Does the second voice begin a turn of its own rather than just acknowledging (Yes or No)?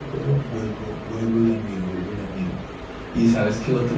No